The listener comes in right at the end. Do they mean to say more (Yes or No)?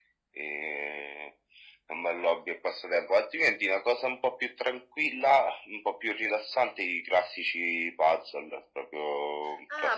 Yes